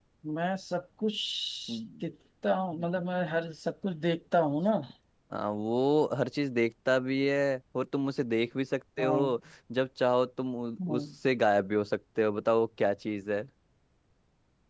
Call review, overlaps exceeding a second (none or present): none